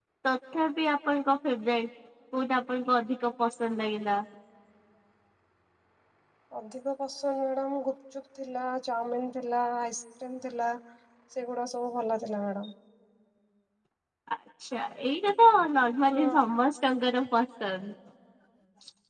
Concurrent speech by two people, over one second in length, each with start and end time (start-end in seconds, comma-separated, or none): none